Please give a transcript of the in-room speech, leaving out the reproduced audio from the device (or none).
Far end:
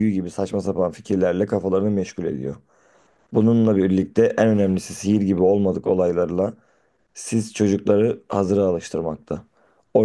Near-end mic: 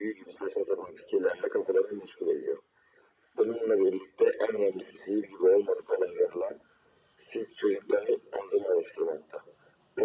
none